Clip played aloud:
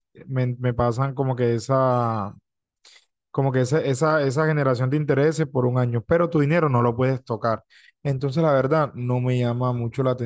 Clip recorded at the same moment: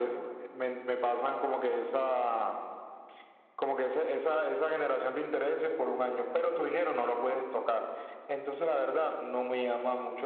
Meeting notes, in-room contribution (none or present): none